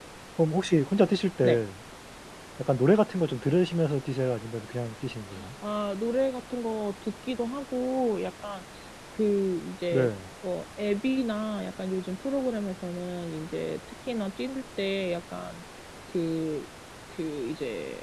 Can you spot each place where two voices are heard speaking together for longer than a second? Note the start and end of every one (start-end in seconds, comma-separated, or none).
none